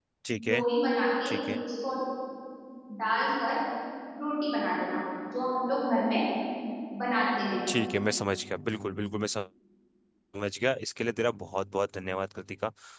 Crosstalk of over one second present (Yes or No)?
No